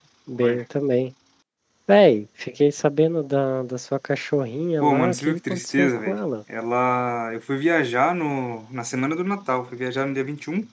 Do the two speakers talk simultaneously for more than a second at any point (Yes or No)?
Yes